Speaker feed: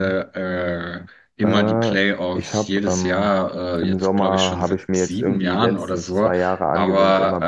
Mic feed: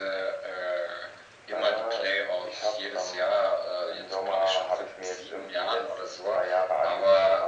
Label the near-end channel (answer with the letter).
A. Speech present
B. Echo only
B